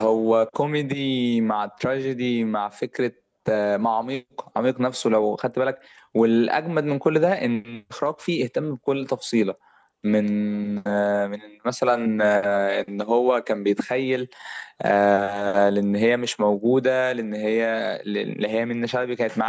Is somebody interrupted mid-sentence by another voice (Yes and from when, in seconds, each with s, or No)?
No